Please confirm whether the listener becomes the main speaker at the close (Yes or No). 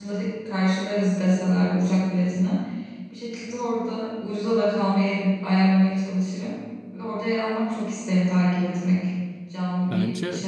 Yes